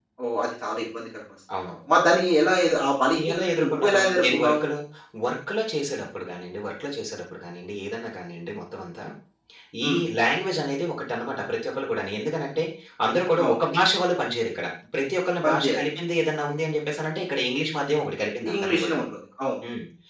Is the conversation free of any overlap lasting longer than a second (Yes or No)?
No